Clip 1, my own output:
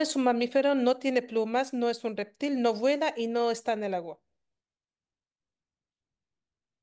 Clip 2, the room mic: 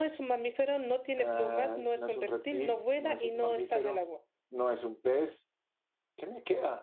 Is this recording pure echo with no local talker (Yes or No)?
No